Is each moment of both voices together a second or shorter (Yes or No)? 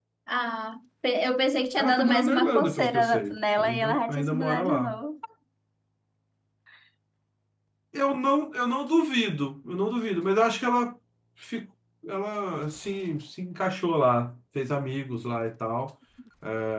No